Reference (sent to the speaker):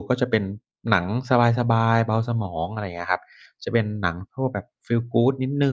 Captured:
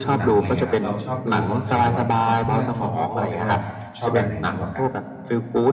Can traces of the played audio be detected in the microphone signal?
Yes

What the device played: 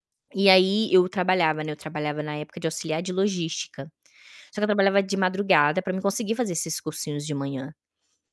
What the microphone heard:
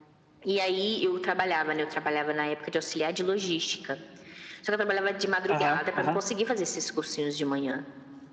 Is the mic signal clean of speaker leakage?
No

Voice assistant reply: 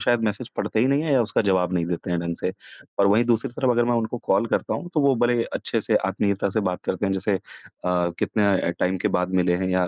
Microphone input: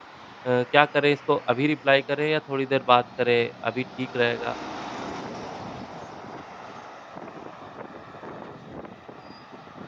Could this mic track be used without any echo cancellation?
Yes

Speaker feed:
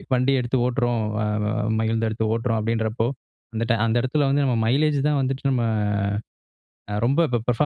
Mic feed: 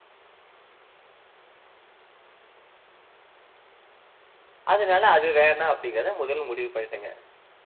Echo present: No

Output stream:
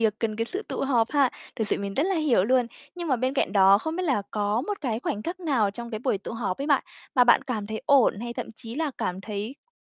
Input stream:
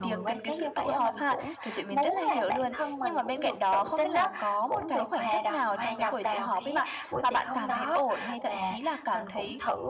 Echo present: Yes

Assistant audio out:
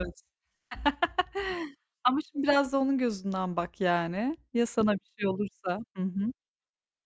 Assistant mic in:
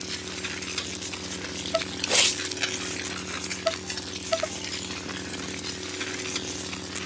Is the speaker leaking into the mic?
No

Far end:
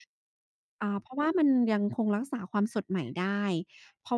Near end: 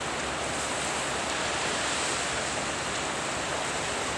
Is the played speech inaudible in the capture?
Yes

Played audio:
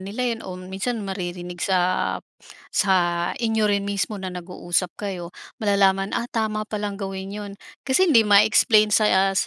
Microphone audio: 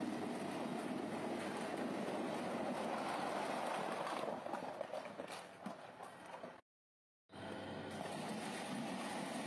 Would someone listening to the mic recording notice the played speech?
No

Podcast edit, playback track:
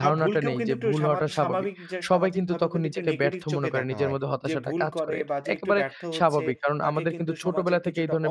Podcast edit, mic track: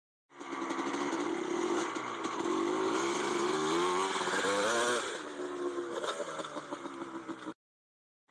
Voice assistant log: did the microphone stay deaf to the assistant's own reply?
Yes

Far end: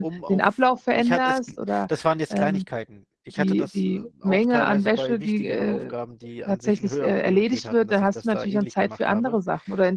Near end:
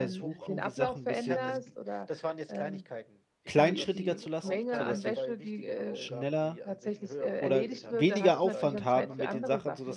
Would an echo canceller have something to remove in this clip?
Yes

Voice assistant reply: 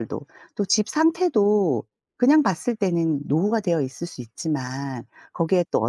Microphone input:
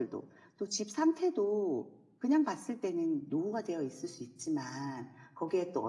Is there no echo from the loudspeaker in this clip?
No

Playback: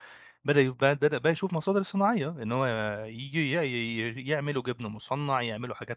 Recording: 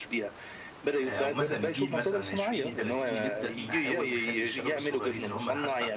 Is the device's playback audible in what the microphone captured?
Yes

